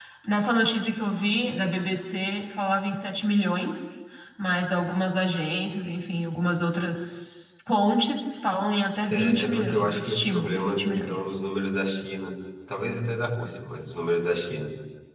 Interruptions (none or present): present